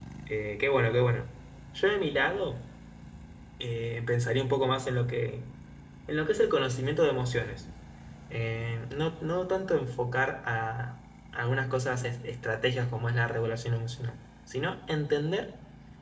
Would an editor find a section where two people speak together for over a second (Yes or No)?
No